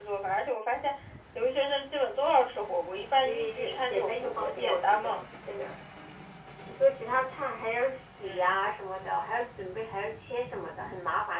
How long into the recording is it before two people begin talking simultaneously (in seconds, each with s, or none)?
3.2 s